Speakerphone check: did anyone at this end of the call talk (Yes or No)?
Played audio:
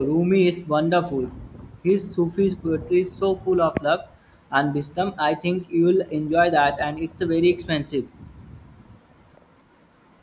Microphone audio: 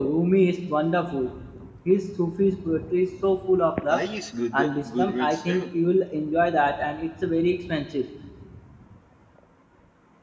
Yes